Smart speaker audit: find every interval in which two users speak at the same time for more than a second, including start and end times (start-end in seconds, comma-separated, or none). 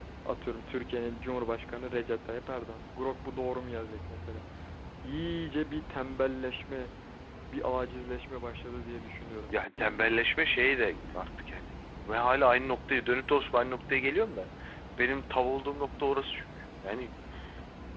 none